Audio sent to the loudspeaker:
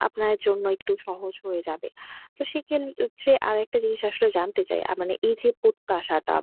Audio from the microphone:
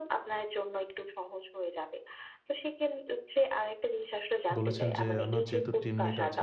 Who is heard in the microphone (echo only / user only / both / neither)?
both